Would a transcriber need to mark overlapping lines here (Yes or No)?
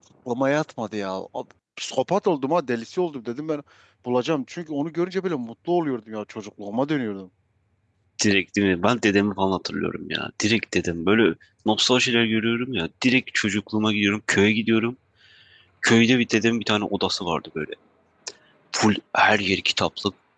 No